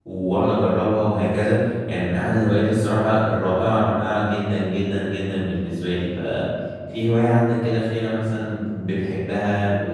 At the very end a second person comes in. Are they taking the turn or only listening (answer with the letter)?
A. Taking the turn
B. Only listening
A